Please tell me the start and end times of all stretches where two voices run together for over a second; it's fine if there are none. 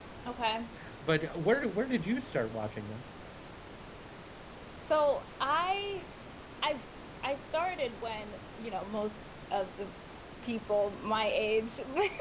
none

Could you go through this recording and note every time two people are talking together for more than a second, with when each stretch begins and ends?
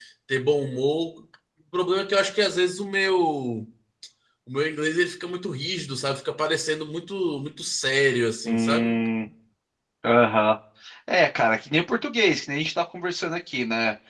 none

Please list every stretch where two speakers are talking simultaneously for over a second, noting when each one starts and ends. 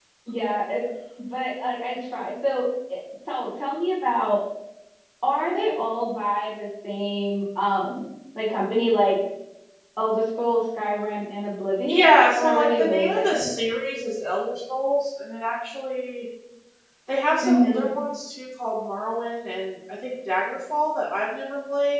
11.9-13.4

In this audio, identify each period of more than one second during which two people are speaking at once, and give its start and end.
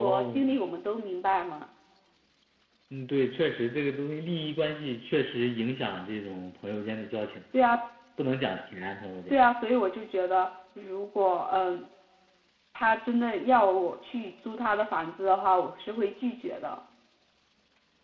none

